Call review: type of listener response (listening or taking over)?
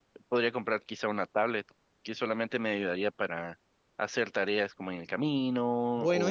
taking over